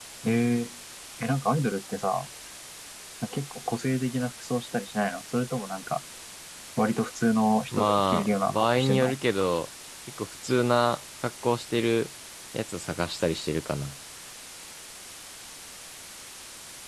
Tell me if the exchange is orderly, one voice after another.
No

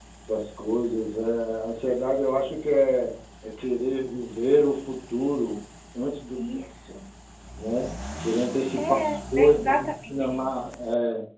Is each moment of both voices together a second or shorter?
No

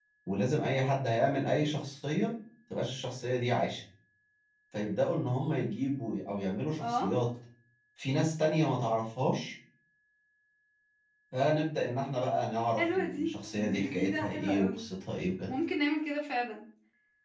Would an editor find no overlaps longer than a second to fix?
No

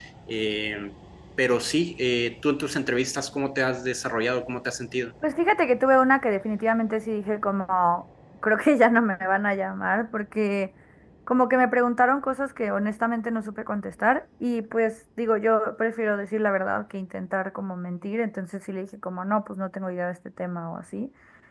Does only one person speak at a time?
Yes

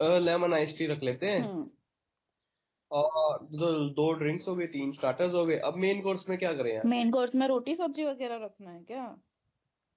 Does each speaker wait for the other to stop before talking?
Yes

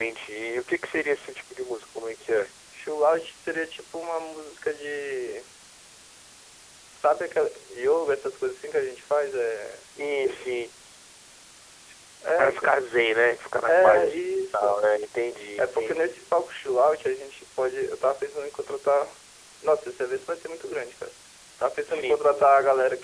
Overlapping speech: Yes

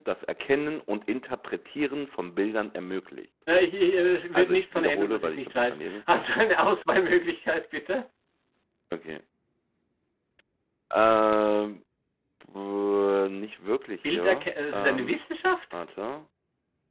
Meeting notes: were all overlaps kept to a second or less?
No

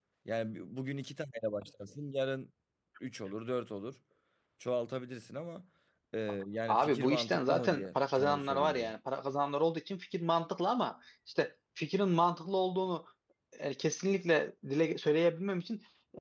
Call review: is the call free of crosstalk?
No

